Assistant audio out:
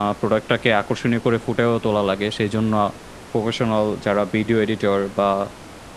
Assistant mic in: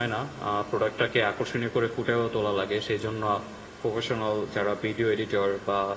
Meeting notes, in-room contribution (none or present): none